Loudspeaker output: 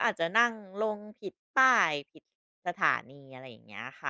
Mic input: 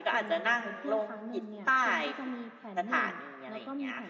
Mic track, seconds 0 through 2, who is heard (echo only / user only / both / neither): both